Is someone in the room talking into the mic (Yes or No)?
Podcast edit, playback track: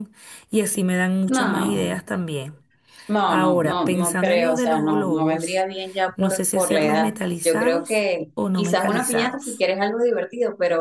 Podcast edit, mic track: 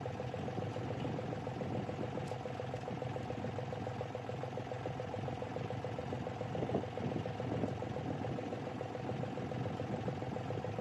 No